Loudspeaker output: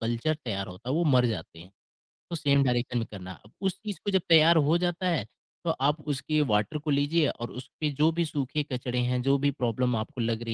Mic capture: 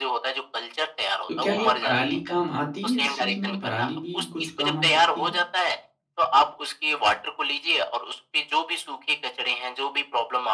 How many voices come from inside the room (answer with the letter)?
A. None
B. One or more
B